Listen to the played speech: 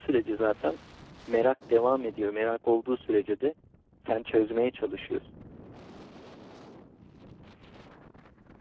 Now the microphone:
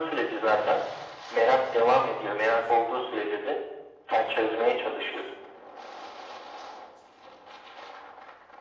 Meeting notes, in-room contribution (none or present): none